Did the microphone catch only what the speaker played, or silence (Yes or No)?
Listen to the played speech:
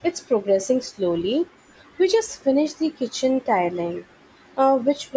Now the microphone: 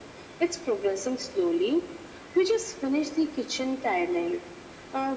Yes